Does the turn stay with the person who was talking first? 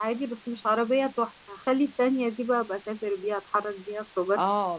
No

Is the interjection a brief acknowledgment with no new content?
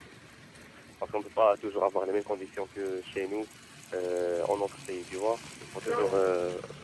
Yes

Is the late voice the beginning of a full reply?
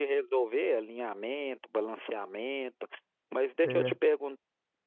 No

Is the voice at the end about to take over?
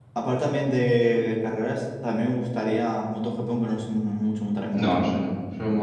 Yes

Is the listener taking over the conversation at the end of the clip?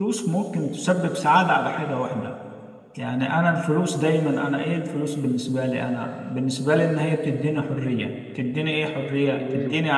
No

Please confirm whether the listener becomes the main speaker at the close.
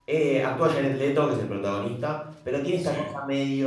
No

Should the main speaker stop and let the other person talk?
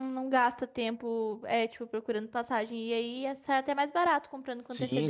Yes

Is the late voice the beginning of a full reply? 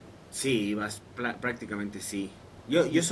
No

